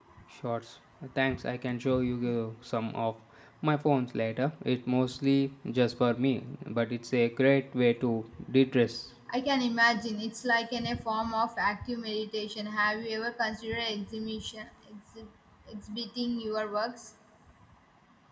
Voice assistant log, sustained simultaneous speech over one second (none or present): none